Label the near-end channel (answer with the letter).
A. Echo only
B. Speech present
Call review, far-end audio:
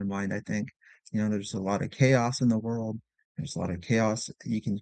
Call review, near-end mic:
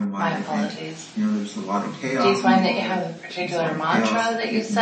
B